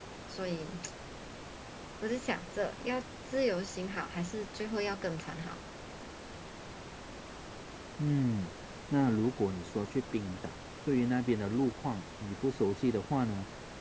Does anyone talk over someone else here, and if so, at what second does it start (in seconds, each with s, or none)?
none